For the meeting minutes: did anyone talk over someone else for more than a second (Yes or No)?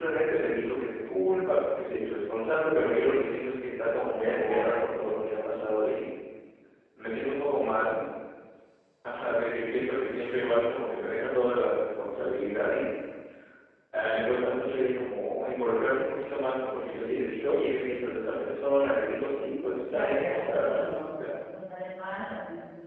Yes